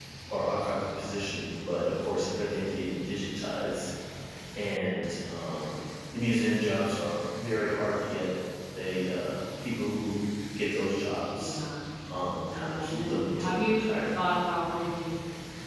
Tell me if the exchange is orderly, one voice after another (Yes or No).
No